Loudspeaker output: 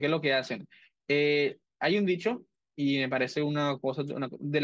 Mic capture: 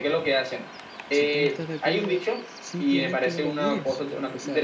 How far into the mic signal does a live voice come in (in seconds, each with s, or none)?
1.1 s